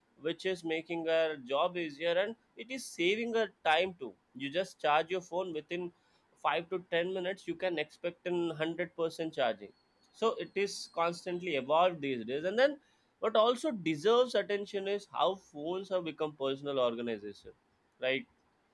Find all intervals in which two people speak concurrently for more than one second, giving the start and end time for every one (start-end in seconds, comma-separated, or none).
none